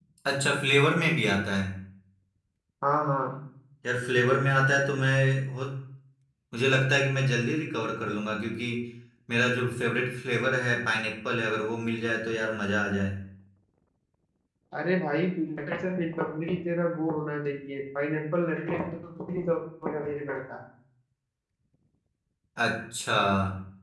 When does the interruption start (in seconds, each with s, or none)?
none